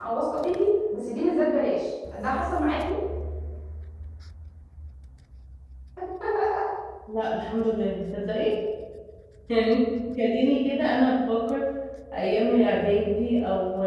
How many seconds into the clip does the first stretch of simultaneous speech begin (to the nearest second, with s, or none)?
none